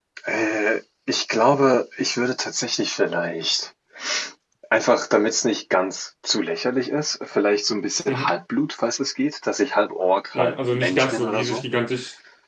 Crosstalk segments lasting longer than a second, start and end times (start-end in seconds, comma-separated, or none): 10.3-11.6